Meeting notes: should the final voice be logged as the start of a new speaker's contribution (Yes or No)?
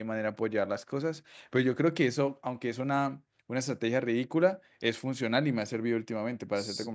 Yes